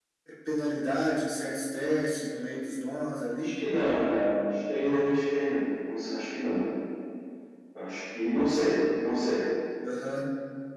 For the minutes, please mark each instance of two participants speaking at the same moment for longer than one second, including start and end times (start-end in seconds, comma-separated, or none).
none